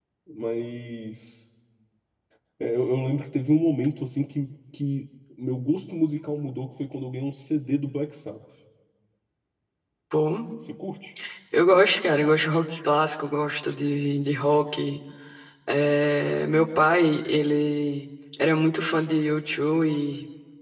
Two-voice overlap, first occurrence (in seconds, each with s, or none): none